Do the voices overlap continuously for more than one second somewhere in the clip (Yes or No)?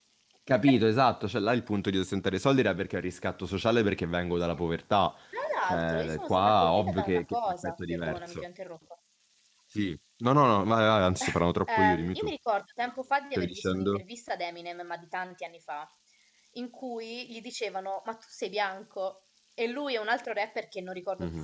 Yes